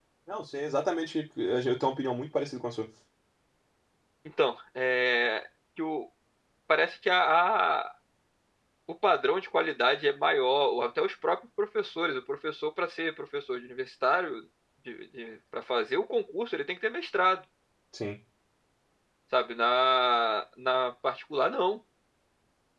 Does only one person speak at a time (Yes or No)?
Yes